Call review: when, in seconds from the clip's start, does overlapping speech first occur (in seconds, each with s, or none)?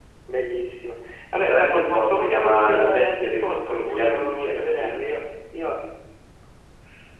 1.4 s